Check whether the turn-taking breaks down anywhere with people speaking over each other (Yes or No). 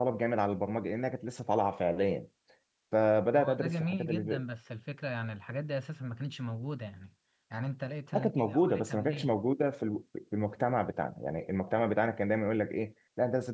Yes